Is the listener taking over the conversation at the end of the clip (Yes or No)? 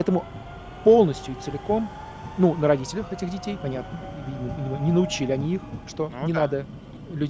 No